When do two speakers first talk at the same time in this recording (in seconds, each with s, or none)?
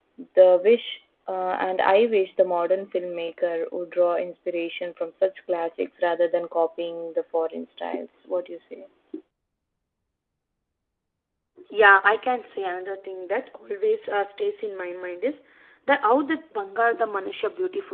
none